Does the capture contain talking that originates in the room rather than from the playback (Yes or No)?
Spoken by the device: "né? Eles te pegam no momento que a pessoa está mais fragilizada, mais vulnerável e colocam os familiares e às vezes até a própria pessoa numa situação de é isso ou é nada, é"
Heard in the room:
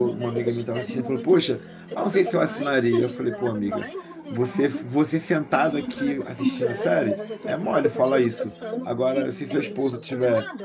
Yes